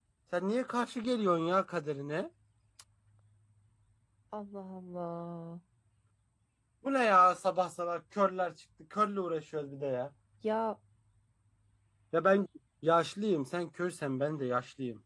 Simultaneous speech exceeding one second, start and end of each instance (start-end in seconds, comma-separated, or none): none